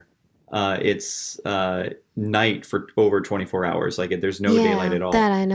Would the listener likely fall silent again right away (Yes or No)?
No